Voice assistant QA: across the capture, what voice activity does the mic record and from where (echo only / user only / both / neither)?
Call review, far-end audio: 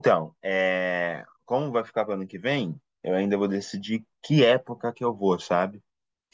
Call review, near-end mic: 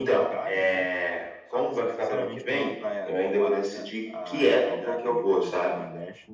both